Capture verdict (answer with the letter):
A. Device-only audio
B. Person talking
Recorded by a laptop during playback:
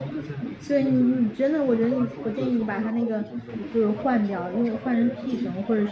B